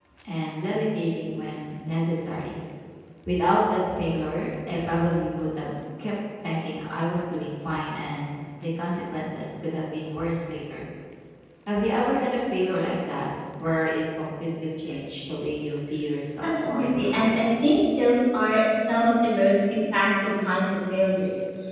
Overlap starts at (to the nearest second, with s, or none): 16 s